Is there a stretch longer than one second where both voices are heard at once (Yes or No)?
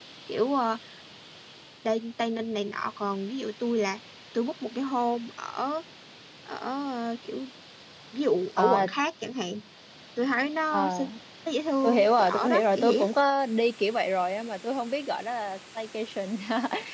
Yes